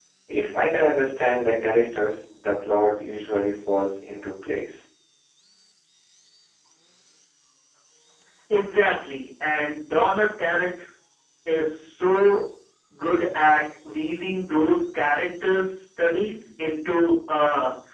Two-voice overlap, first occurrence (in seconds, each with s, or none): none